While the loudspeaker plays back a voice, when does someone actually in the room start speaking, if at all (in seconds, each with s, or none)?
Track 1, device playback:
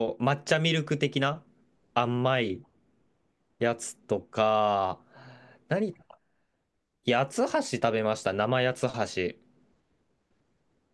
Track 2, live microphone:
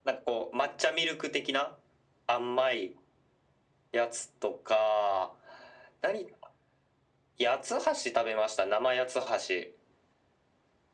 none